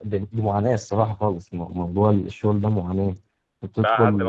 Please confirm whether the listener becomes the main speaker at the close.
Yes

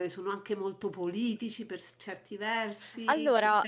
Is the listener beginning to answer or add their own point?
No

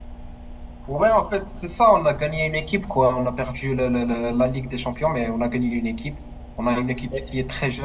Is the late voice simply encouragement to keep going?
Yes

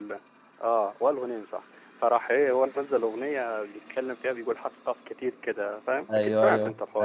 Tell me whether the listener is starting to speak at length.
Yes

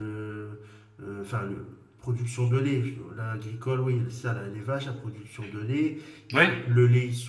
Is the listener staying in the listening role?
Yes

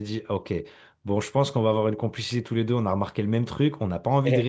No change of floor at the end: Yes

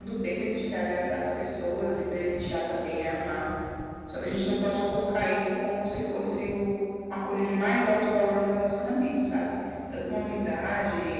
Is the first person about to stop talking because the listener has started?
No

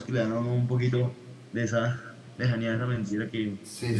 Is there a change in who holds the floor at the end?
Yes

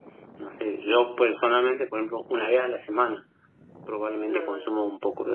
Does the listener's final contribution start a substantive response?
No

